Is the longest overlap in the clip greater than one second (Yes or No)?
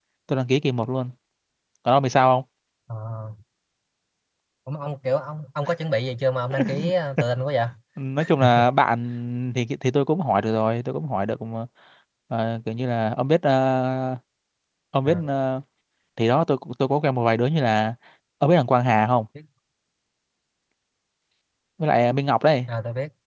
No